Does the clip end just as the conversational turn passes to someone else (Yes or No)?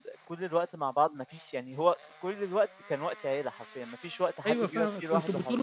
Yes